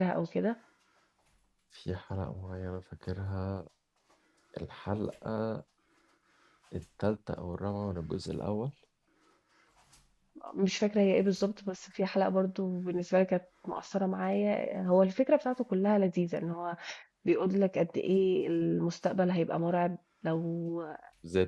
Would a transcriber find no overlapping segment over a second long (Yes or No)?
Yes